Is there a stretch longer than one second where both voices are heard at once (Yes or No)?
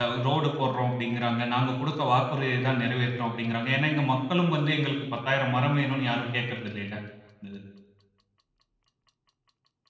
No